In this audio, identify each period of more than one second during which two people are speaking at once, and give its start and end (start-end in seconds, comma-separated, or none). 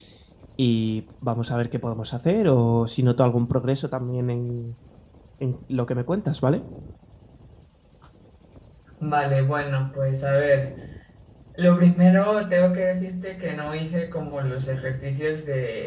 none